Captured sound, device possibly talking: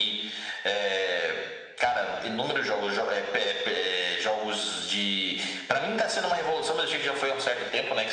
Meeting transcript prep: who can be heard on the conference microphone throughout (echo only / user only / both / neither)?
echo only